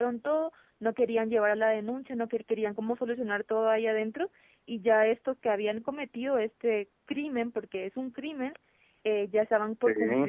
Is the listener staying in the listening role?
Yes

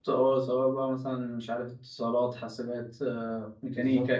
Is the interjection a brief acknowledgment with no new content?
No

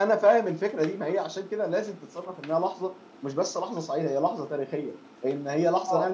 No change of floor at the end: Yes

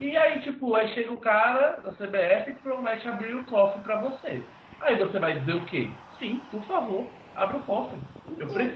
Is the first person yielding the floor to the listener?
No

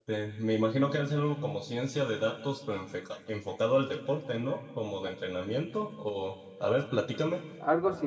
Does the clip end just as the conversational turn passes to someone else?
Yes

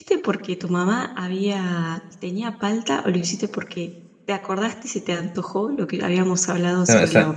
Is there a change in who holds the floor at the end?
Yes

